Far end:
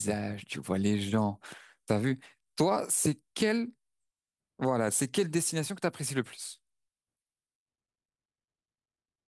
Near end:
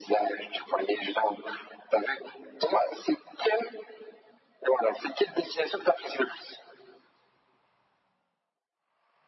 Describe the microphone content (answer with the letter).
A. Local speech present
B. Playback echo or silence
B